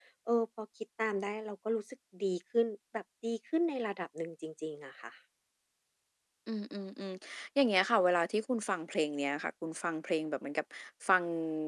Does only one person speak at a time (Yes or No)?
Yes